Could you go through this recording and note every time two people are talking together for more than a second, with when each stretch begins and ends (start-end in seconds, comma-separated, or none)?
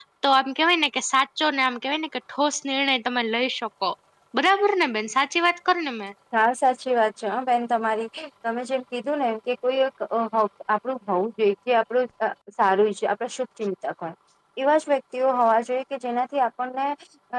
none